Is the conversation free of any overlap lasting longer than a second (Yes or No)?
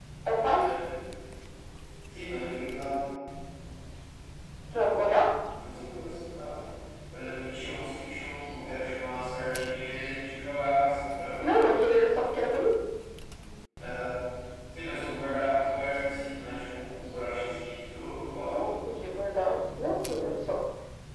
Yes